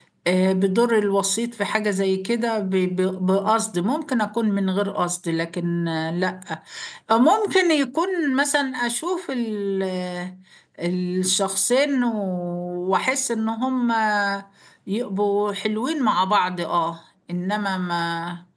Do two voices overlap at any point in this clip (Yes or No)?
No